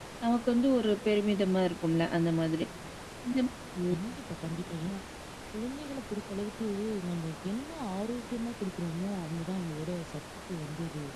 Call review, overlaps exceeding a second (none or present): none